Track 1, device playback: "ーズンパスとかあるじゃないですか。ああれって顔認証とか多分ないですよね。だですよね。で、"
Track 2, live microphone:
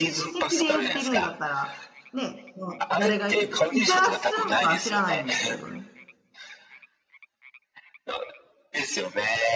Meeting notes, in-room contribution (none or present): present